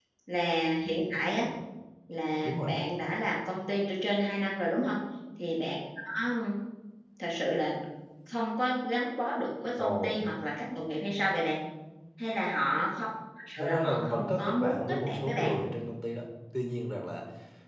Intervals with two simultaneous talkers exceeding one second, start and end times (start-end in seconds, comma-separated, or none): 13.6-15.5